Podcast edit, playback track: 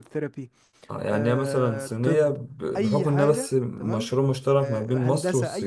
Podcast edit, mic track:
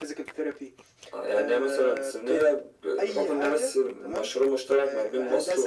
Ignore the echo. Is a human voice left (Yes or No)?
No